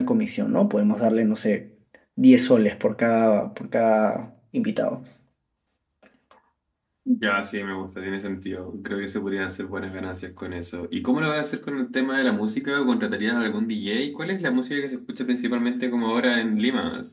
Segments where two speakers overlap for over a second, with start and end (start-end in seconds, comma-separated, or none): none